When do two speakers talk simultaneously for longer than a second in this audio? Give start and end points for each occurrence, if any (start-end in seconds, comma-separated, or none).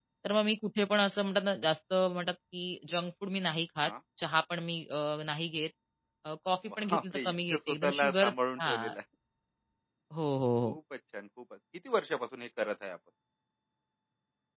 6.8-8.9